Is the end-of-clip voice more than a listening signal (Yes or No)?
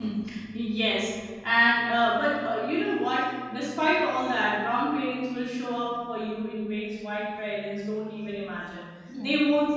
No